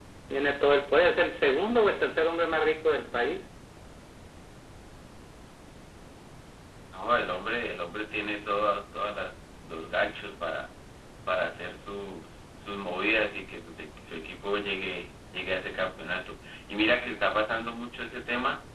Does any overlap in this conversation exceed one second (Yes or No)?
No